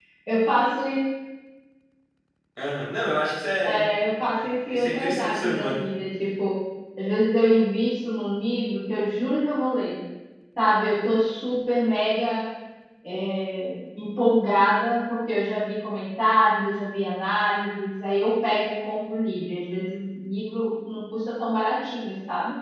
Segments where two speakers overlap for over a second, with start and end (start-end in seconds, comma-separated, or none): 4.3-5.8